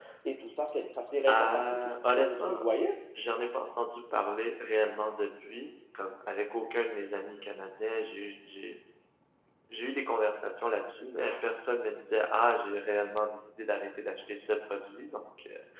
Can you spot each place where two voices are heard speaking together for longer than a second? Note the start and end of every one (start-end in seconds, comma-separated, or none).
1.3-2.6